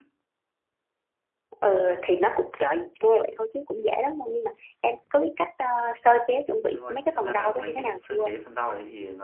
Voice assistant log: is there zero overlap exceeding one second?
No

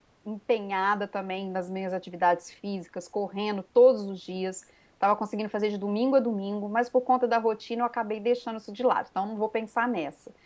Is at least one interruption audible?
No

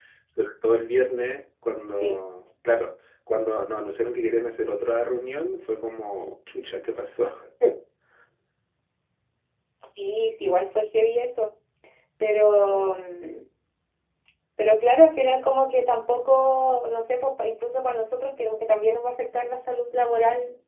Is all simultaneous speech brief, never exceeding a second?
Yes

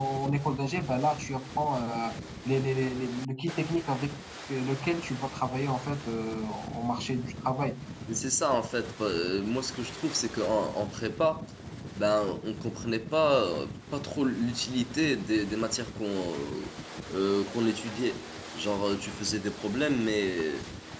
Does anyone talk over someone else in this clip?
No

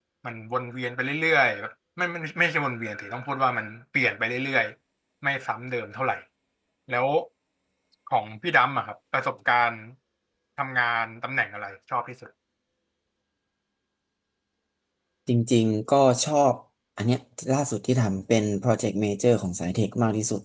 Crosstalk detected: No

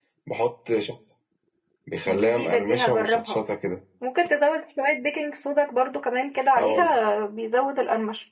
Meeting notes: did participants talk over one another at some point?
Yes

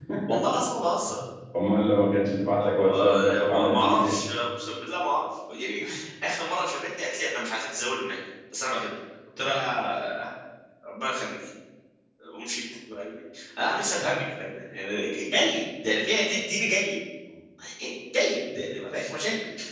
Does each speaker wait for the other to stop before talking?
No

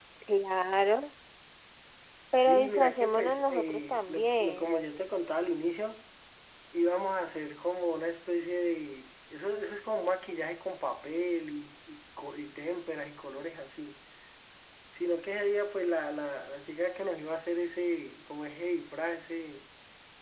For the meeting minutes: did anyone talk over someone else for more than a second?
Yes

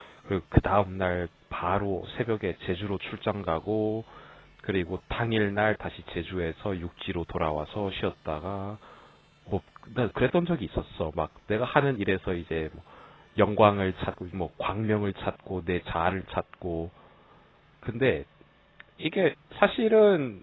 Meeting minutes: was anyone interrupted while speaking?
No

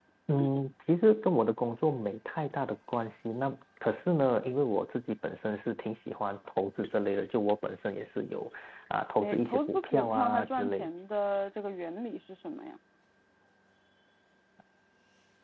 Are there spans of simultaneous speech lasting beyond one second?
Yes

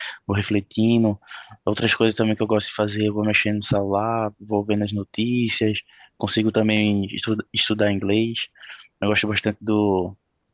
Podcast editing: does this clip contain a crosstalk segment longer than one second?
No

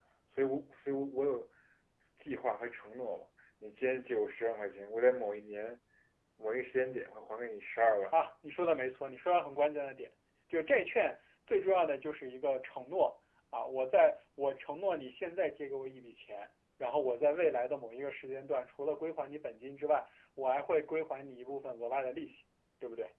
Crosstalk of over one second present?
No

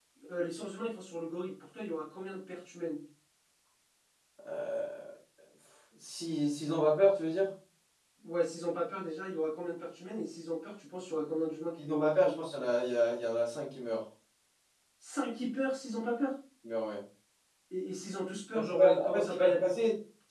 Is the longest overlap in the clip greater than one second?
Yes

